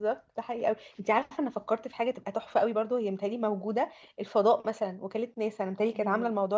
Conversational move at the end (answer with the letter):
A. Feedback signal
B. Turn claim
A